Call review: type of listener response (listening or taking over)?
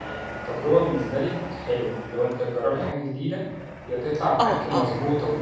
listening